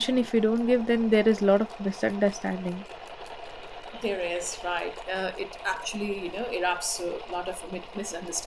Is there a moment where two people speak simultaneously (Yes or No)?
No